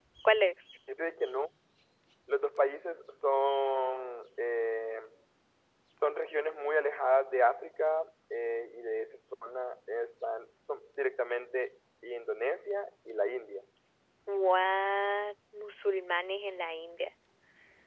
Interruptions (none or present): none